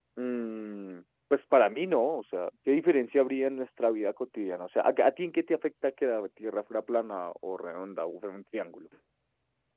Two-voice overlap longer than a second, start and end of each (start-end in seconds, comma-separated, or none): none